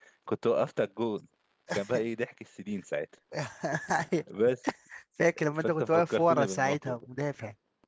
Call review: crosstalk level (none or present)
present